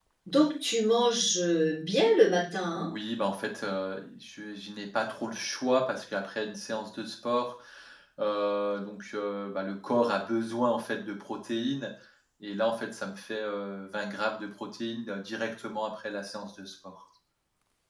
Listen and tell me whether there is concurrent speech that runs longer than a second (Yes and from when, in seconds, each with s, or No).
No